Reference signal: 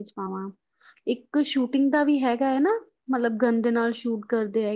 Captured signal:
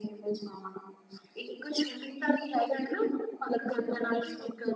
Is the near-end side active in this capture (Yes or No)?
Yes